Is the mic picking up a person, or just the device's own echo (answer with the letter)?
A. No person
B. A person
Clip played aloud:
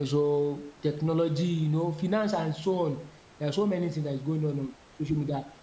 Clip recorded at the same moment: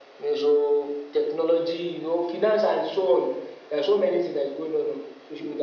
A